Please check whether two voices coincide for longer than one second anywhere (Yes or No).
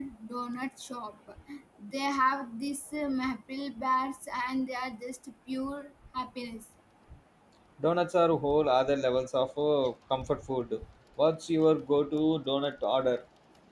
No